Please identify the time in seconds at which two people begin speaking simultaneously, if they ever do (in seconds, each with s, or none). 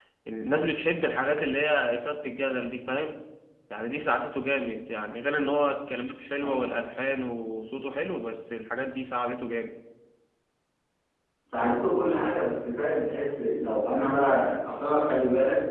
none